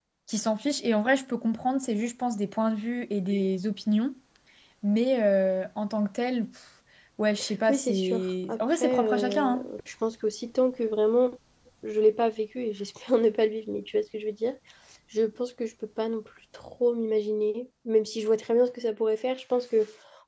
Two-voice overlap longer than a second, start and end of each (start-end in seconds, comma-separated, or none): 7.7-9.7